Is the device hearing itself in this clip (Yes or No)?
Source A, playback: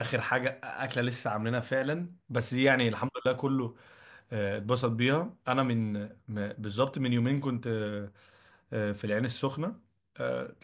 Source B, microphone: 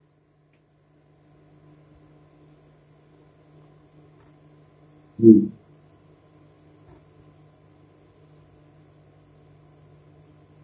No